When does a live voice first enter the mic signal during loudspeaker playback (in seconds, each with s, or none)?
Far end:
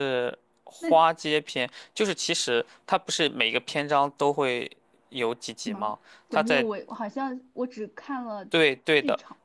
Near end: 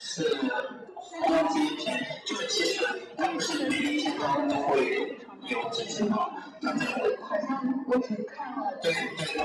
3.1 s